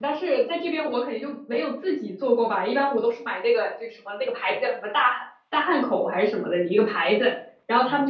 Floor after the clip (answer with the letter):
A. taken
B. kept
B